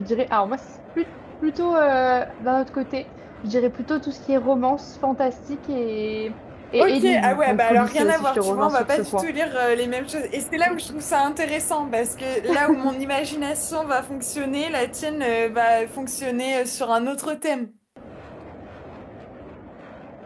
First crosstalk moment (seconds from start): 6.8 s

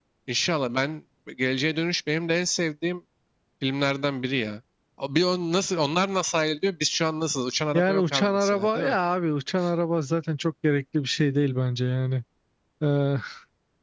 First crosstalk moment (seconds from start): 7.7 s

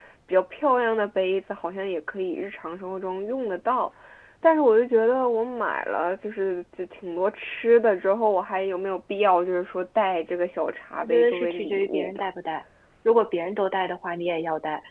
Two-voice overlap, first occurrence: 11.0 s

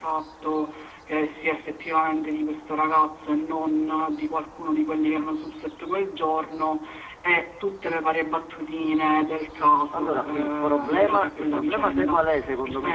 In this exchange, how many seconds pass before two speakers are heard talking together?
9.9 s

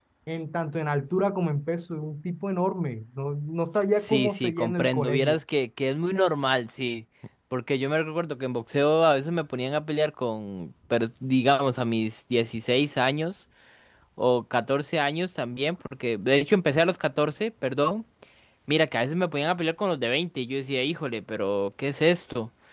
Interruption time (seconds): 4.0 s

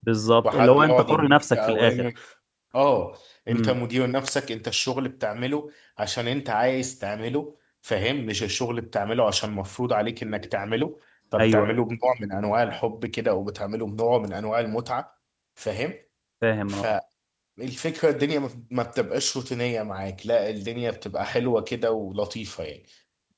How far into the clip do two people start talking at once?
0.5 s

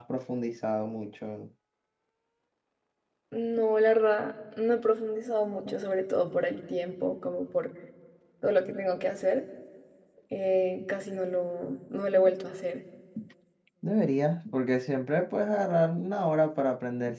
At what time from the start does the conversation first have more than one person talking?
none

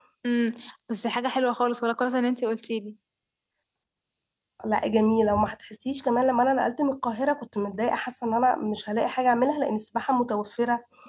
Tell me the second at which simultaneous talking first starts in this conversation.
none

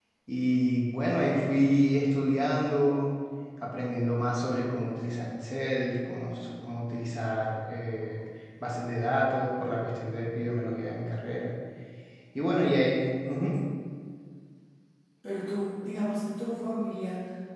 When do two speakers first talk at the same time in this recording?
none

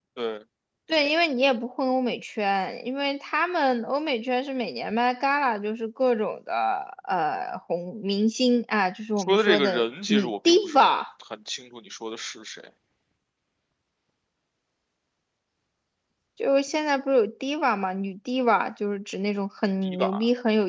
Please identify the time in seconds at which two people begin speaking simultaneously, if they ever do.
9.2 s

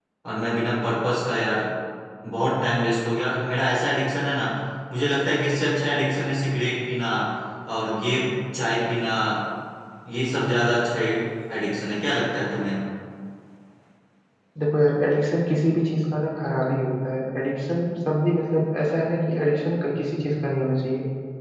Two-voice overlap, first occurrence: none

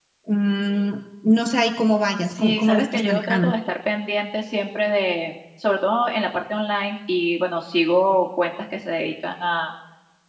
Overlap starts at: 2.2 s

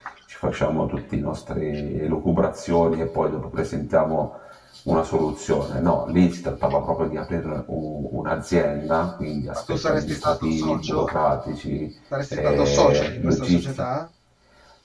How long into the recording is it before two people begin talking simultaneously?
9.6 s

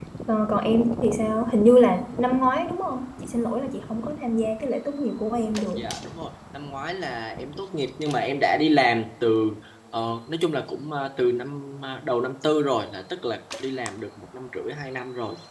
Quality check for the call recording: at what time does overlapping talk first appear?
none

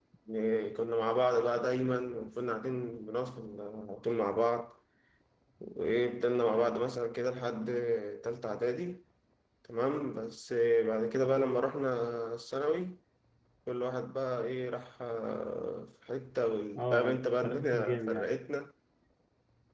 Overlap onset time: 16.8 s

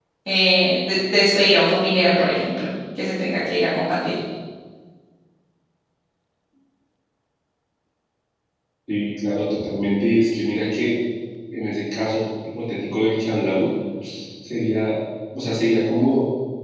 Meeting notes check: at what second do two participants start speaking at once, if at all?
none

